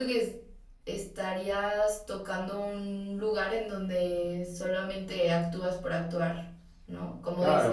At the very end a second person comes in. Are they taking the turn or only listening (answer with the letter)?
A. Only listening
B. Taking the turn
B